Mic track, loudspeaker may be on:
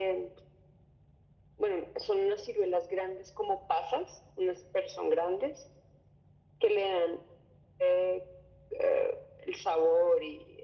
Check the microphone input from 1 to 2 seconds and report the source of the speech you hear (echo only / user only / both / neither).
echo only